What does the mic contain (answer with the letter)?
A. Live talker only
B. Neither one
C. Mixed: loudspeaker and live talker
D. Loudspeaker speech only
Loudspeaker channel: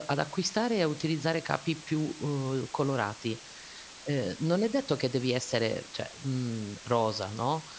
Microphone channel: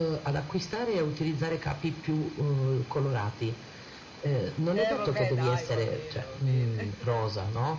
C